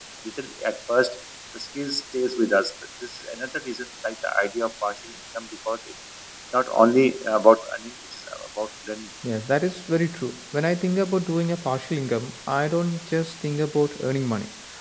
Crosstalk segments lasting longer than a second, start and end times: none

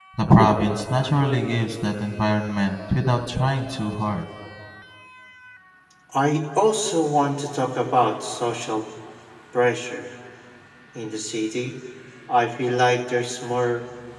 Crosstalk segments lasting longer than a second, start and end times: none

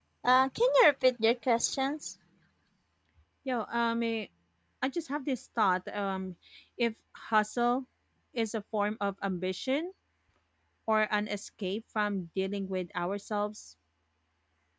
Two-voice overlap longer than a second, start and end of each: none

